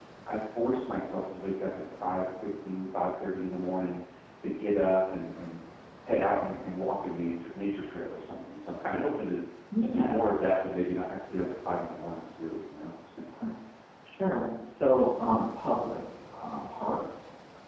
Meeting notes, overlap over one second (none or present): none